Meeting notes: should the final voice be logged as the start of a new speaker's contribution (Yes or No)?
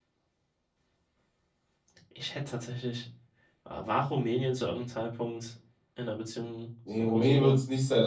Yes